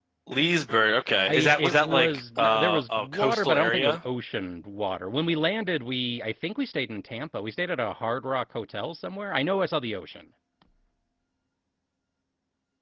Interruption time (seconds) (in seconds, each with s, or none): 1.3 s